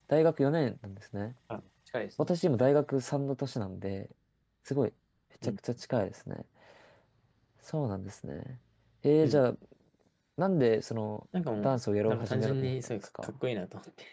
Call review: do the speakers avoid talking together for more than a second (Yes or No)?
No